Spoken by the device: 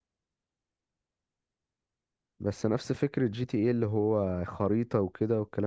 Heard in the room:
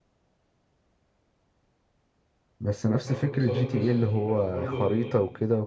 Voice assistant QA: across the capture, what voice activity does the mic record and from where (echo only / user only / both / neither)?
both